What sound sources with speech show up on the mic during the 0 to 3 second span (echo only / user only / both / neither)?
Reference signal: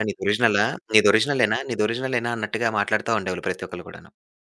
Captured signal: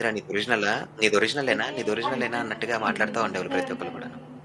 both